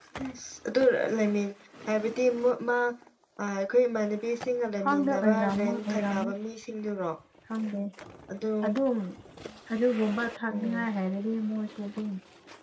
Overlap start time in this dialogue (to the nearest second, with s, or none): 5 s